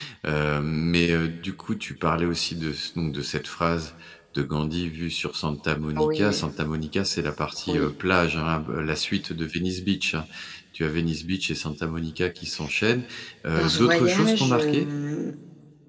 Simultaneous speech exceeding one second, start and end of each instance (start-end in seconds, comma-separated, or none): 13.6-14.9